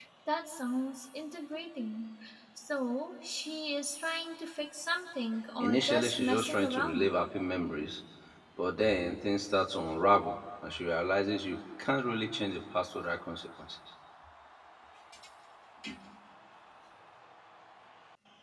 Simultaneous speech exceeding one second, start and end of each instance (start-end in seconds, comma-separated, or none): 5.6-7.1